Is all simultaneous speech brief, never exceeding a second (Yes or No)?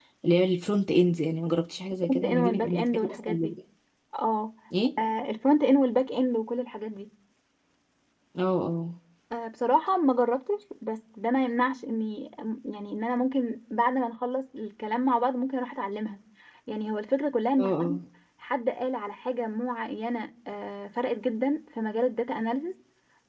No